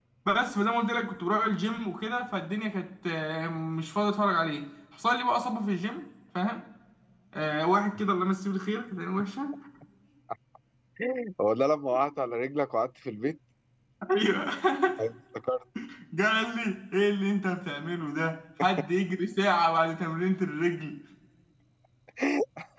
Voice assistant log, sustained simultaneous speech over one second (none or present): none